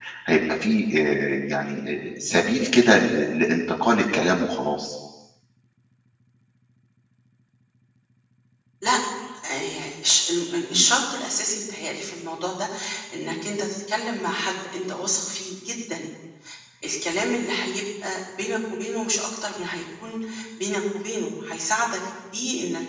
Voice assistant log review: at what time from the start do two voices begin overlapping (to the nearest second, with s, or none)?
none